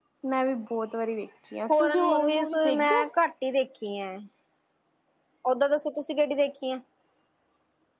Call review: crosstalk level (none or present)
present